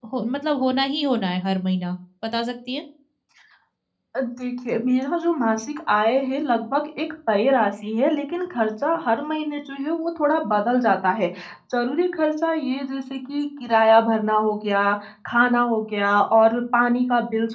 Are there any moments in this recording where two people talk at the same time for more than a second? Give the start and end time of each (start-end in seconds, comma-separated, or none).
none